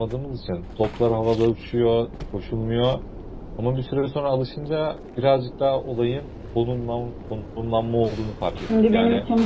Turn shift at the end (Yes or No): Yes